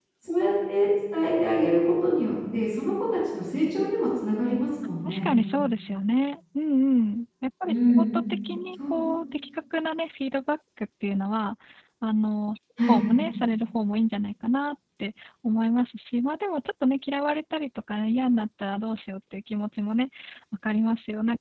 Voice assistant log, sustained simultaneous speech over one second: none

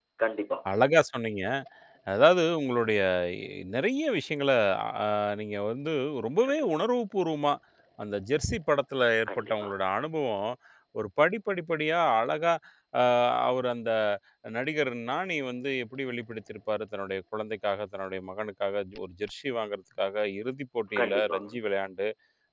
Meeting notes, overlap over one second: none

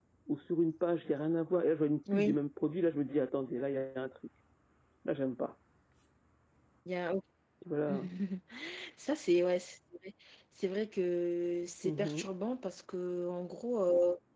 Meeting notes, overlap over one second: none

